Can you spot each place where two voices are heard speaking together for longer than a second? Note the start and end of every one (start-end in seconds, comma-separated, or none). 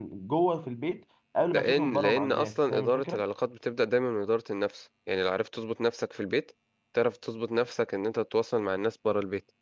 1.5-3.2